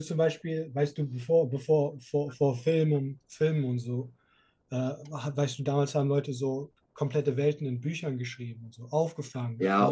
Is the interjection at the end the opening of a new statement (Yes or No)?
Yes